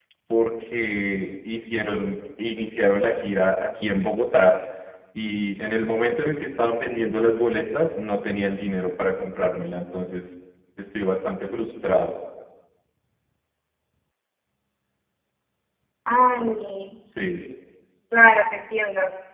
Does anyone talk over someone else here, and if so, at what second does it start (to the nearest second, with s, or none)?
none